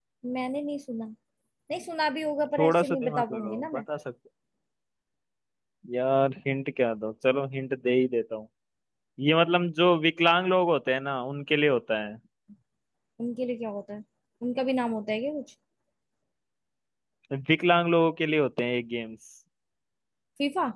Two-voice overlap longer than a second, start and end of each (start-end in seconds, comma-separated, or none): 2.6-3.8